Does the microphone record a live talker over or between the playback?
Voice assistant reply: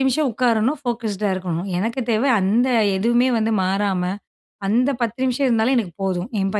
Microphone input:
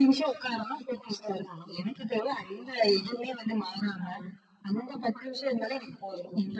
No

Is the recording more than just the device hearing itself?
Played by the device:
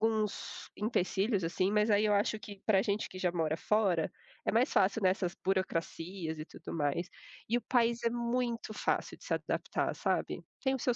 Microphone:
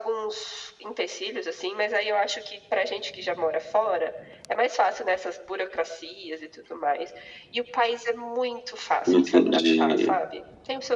Yes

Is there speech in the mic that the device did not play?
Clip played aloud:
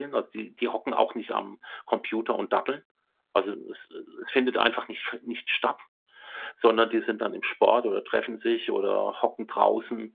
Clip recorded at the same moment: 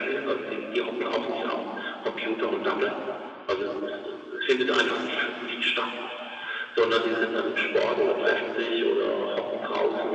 No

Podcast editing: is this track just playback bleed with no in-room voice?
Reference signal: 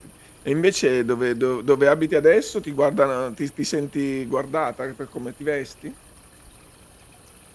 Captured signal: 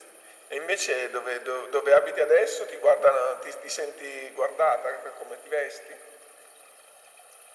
Yes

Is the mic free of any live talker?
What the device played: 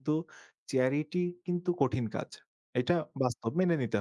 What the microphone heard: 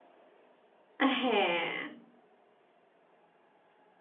No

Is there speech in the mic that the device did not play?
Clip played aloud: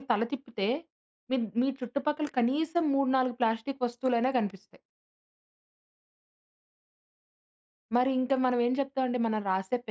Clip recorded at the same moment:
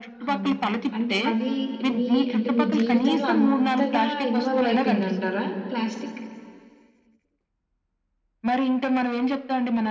Yes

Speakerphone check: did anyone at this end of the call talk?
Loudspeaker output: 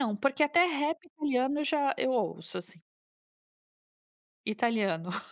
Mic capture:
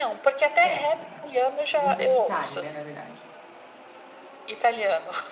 Yes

